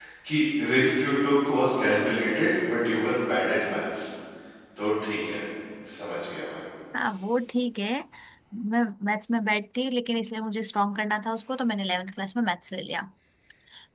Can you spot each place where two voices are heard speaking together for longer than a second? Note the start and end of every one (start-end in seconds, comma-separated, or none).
none